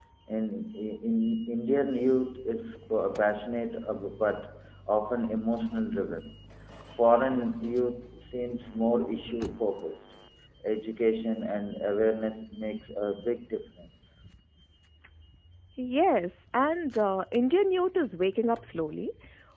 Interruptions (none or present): none